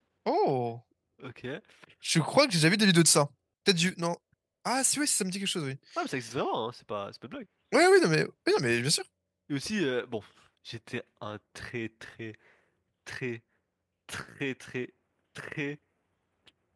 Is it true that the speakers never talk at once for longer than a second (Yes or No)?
Yes